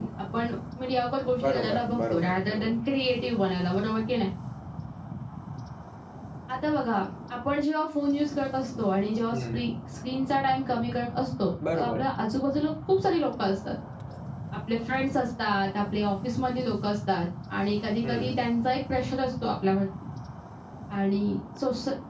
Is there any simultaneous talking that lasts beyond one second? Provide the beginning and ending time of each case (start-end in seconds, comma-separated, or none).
1.4-2.8